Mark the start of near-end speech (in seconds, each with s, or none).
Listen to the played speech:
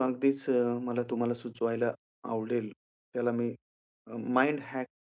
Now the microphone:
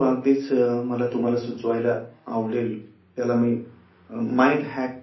none